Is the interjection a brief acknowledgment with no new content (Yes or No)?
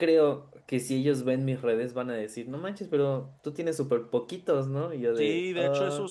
No